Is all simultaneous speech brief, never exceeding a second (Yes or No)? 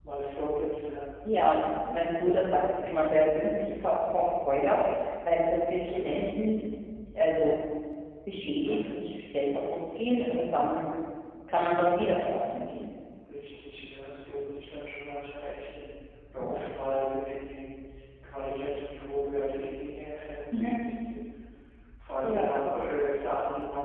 Yes